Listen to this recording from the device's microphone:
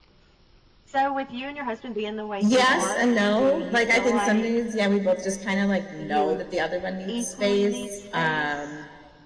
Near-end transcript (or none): yes and no. Like, I think some days, yeah, we both just kinda, like, know that the other one needs space. Um